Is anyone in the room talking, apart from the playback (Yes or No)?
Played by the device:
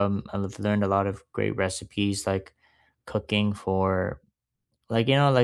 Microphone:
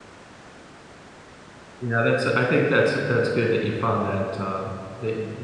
Yes